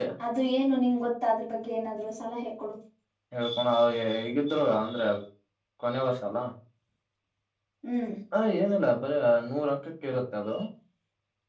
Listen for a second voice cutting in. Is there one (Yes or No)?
No